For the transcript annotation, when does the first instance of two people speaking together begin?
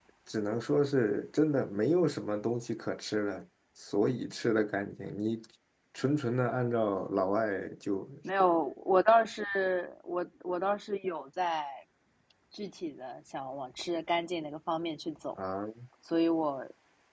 none

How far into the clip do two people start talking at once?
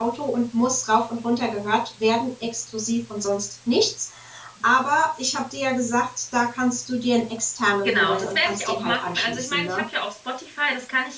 7.8 s

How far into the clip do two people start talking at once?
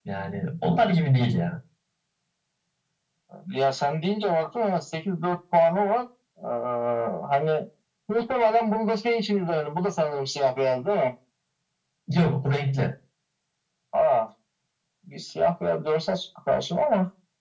none

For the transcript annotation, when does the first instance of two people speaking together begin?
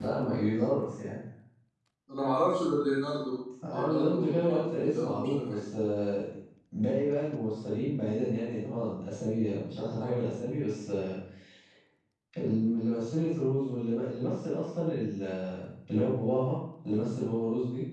3.6 s

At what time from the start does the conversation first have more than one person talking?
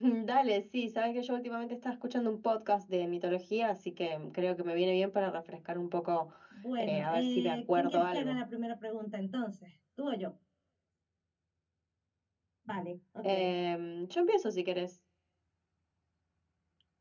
6.8 s

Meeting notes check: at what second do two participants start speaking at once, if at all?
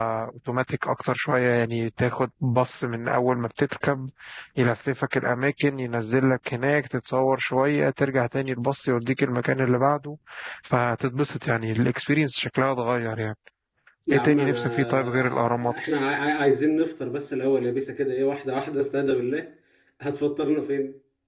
14.1 s

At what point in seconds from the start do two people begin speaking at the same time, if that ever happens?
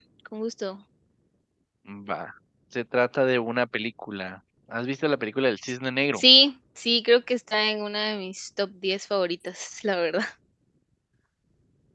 none

